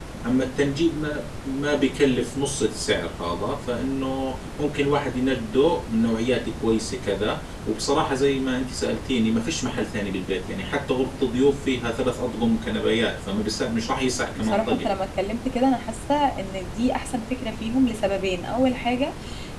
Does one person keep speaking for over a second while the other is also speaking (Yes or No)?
No